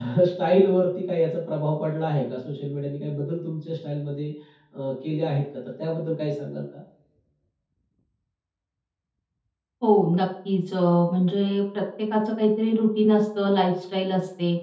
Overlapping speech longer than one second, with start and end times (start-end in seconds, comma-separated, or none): none